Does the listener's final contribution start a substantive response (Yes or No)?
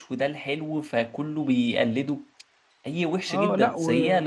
Yes